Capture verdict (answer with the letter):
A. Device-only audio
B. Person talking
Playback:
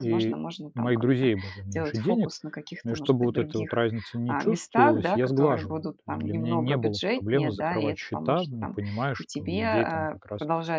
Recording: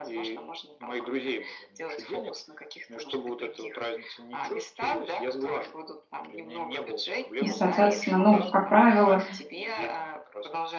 B